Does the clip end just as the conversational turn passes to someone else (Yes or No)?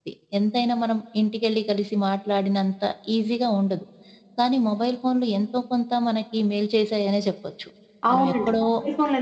Yes